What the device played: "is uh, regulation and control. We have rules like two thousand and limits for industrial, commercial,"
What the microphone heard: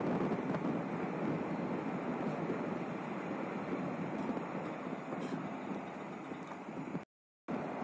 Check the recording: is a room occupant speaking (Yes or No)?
No